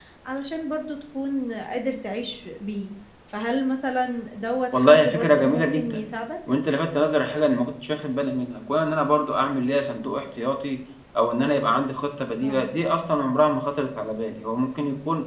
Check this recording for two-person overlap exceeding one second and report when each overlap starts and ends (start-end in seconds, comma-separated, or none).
4.7-6.0